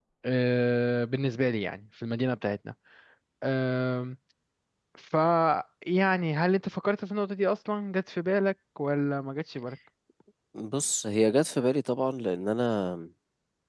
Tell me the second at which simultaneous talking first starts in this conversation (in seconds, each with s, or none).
none